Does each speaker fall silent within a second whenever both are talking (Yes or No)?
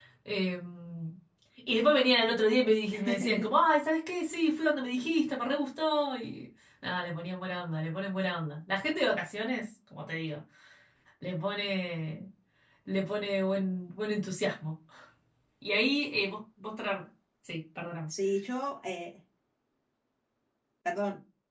Yes